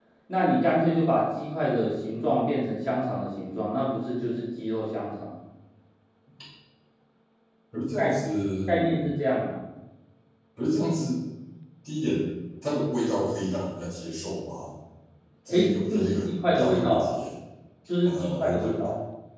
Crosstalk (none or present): present